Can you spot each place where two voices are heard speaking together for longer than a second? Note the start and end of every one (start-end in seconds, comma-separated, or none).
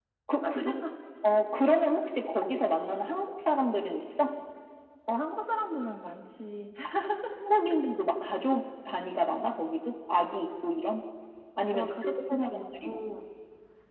11.7-13.0